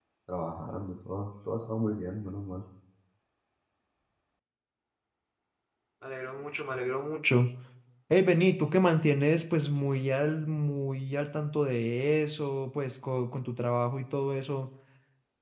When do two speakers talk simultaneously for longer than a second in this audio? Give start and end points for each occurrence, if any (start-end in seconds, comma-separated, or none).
none